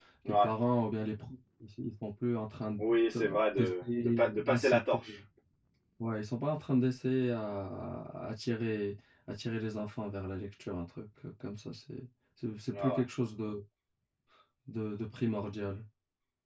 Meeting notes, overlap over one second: present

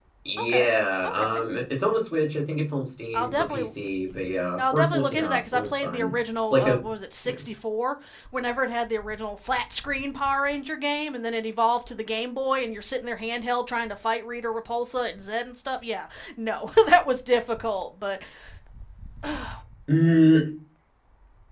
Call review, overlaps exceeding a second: present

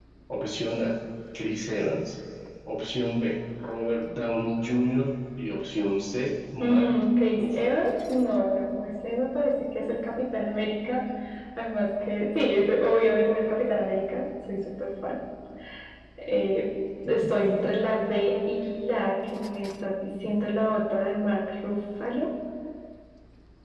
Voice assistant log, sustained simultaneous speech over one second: none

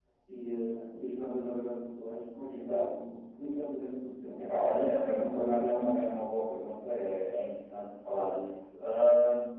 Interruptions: present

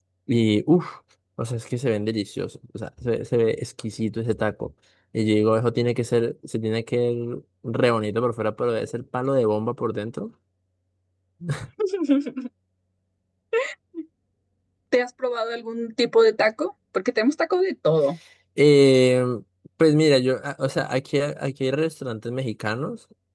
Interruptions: none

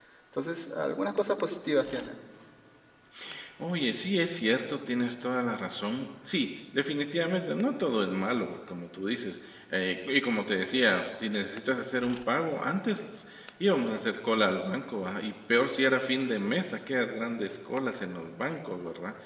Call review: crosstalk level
none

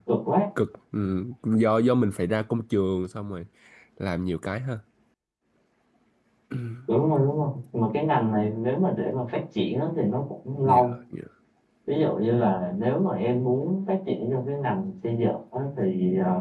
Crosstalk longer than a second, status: none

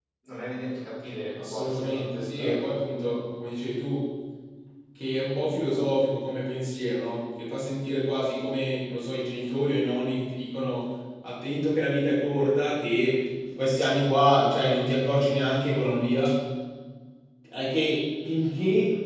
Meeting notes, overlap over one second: present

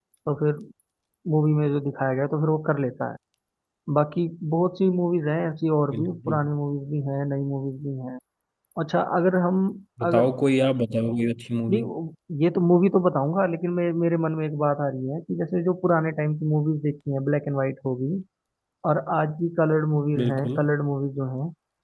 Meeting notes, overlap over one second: none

